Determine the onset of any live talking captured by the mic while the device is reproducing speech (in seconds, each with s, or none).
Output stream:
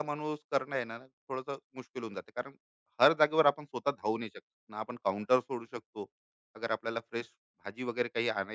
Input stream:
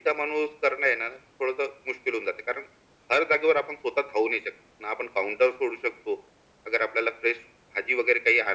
none